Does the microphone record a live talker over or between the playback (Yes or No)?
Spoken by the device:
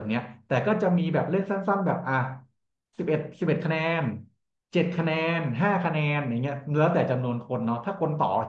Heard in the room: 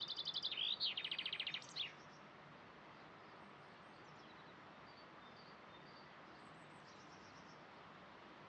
No